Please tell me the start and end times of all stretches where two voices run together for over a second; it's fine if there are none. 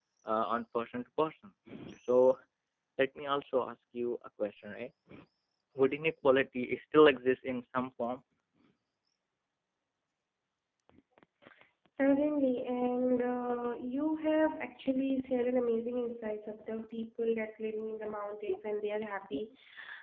none

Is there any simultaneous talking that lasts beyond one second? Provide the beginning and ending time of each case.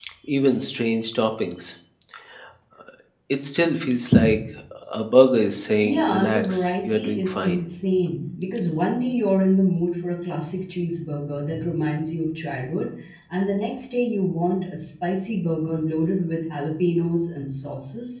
5.8-7.6

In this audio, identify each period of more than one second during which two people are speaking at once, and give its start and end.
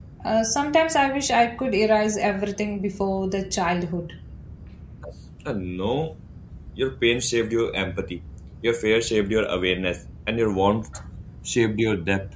none

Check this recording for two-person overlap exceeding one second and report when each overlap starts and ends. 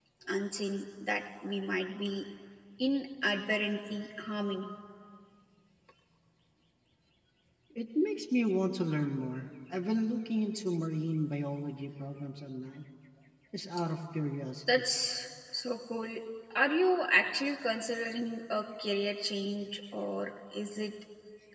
none

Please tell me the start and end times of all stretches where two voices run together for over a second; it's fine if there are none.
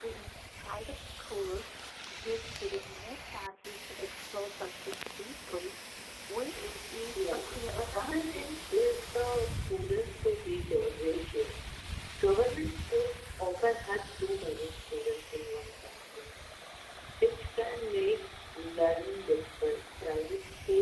7.2-8.7

